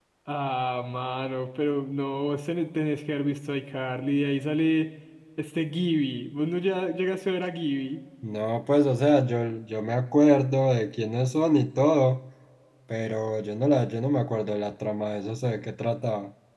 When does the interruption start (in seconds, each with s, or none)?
none